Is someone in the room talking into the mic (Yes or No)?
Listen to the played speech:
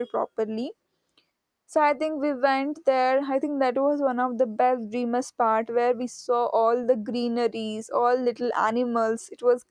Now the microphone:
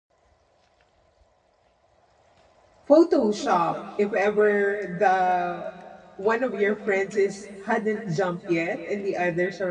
Yes